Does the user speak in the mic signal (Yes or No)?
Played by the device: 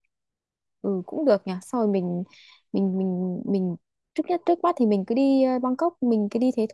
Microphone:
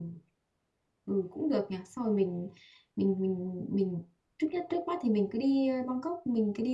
No